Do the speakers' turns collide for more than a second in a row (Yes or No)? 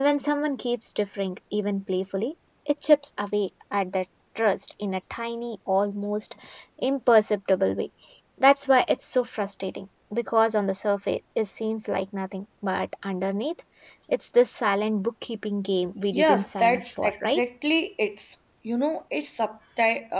Yes